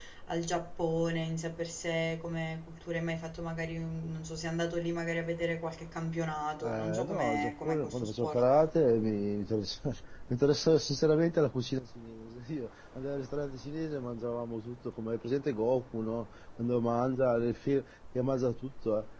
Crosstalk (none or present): present